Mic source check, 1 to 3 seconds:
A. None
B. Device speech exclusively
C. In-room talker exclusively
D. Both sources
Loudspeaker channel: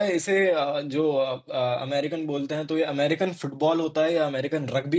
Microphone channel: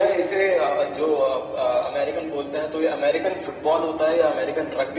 B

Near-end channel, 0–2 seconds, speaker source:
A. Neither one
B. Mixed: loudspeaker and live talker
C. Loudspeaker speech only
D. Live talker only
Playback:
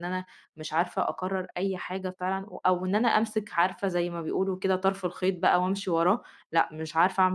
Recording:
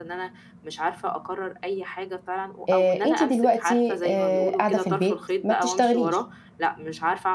C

